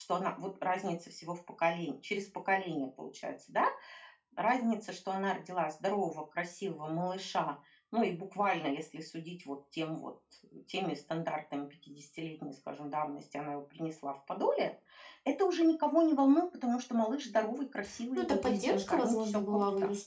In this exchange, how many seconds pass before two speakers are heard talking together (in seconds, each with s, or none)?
18.2 s